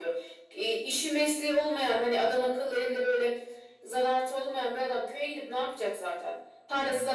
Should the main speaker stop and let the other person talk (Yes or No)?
No